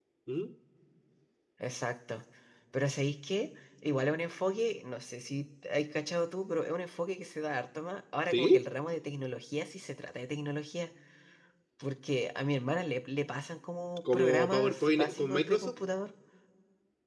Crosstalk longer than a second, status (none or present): present